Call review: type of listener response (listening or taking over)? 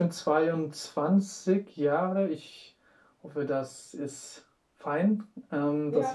taking over